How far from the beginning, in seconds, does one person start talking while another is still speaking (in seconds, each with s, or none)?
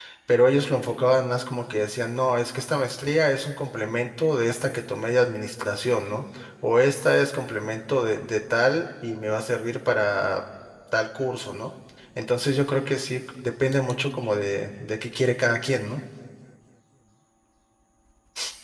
none